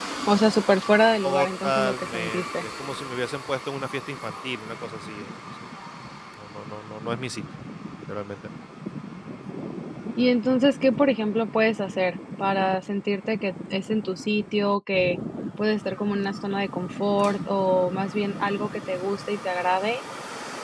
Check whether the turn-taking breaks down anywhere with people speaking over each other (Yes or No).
Yes